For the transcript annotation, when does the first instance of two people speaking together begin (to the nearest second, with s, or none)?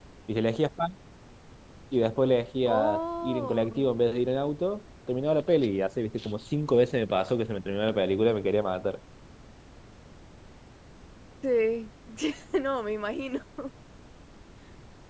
3 s